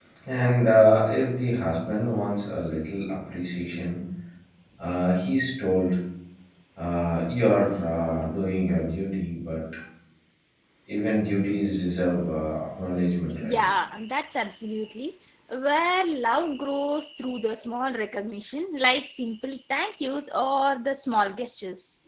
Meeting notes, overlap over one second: none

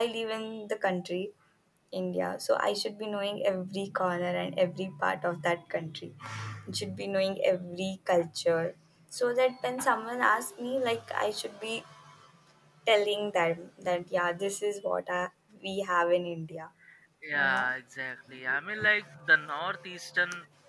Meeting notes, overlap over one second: none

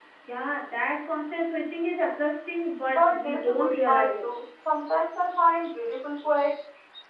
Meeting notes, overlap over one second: present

